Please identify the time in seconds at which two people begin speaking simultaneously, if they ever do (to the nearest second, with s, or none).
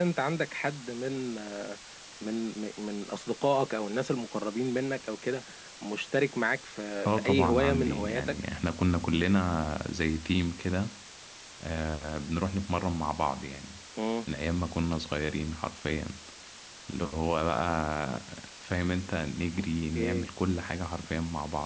7 s